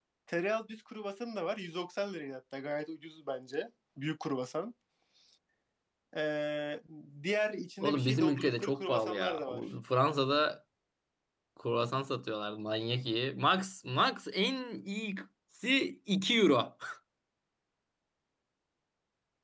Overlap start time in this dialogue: 8 s

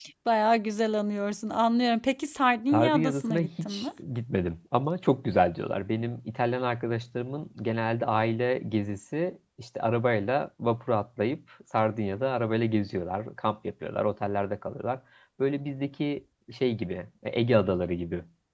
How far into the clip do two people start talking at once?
3 s

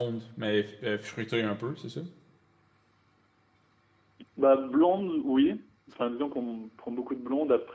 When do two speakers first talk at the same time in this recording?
none

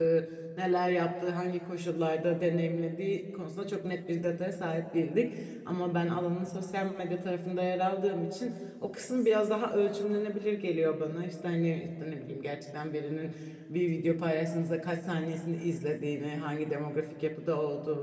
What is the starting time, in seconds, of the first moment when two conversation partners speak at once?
none

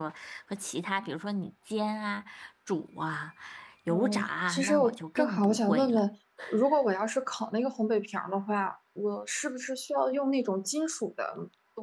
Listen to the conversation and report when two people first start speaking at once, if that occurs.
4 s

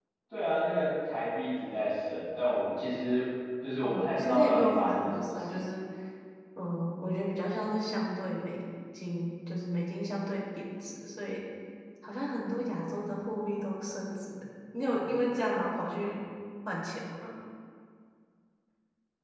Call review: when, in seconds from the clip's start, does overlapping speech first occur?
4 s

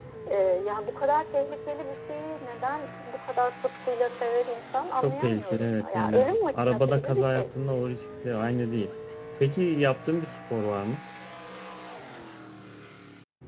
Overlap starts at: 5 s

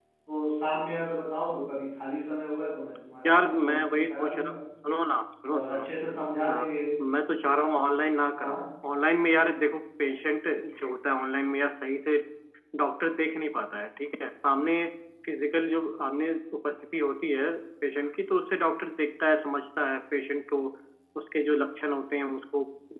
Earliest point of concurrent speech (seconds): 3 s

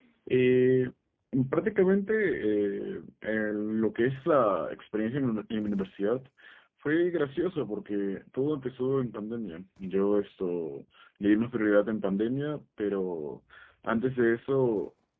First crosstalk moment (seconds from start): none

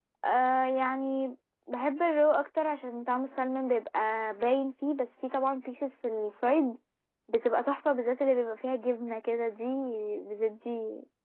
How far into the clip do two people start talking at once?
none

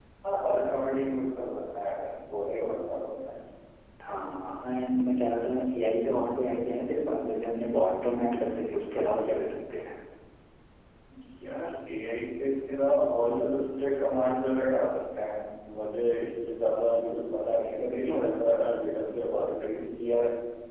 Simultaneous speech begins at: none

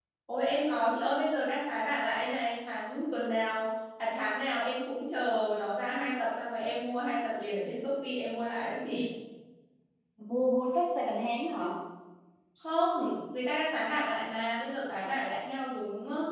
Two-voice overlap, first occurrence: none

